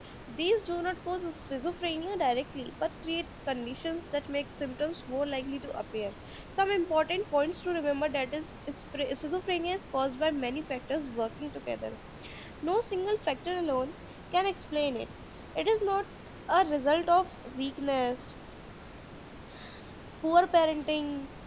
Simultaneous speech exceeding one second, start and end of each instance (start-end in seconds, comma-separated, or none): none